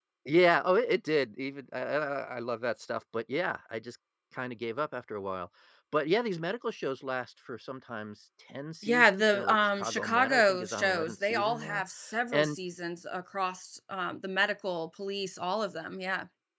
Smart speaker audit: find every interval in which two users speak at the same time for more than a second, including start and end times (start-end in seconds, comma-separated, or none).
8.8-11.8